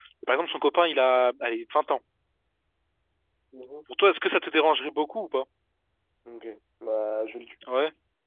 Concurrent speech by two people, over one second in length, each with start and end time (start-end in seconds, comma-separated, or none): none